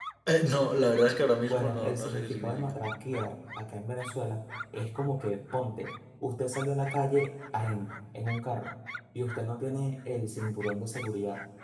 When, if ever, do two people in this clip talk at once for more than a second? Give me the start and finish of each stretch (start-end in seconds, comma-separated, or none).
1.5-2.8